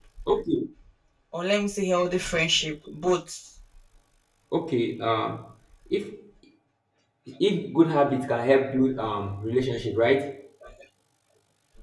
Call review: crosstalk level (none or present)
none